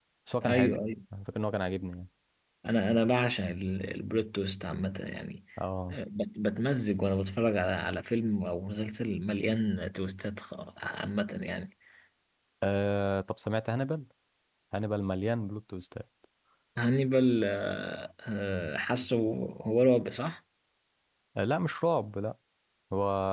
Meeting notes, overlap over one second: none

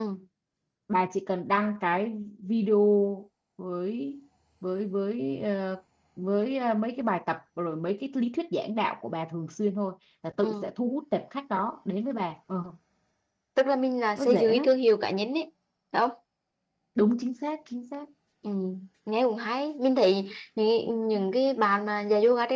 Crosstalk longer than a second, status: none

